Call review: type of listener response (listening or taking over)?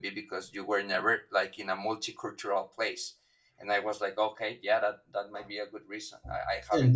taking over